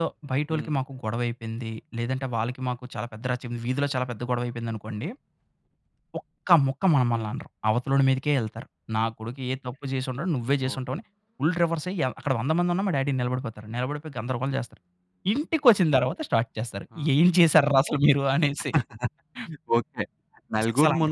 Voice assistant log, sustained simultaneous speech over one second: none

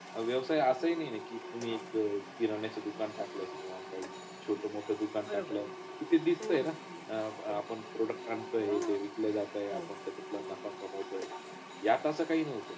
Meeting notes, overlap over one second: none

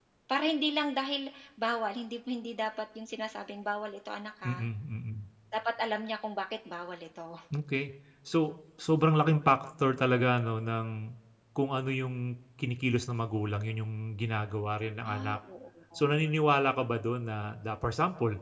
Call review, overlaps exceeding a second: none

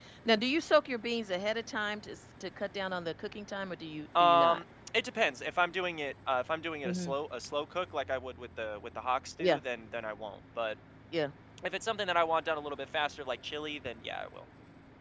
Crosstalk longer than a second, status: none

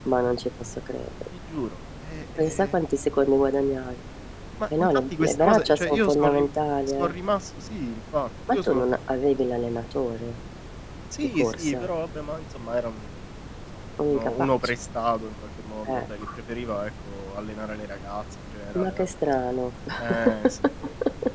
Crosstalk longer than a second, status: present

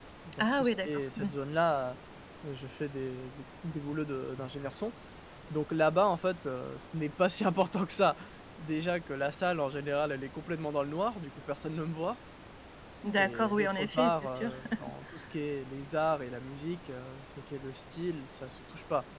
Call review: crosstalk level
present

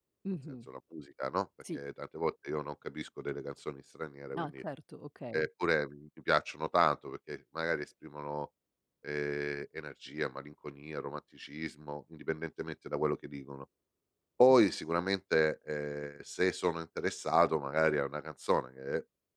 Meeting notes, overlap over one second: none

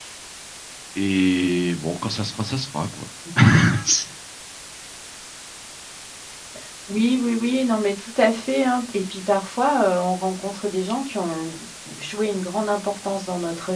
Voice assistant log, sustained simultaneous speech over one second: none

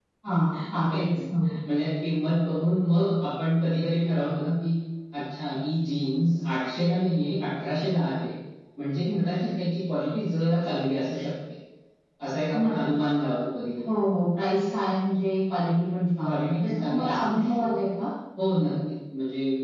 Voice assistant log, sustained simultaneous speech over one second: present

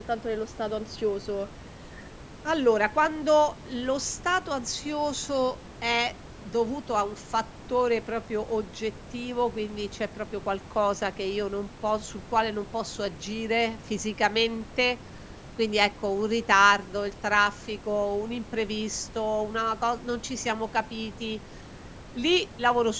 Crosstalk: none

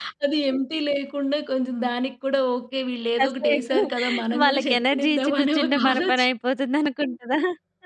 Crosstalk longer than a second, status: present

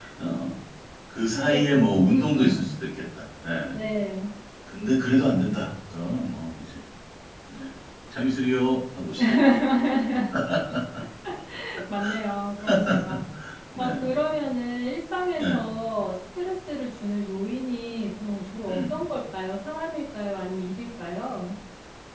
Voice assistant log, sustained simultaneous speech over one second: present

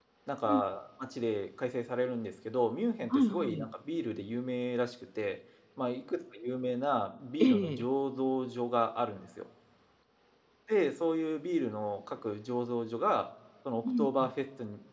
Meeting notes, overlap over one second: none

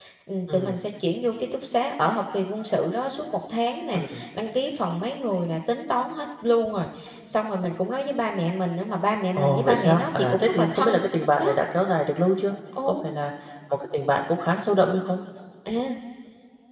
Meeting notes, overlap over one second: present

